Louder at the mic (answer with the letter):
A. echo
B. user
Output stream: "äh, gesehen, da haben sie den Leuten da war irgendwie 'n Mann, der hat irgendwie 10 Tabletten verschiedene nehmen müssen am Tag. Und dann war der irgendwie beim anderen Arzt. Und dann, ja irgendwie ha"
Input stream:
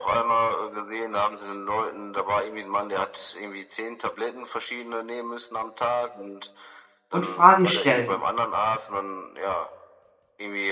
B